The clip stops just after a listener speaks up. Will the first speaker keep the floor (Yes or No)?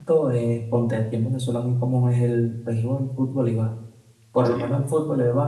Yes